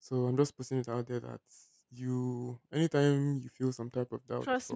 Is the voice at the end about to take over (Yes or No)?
Yes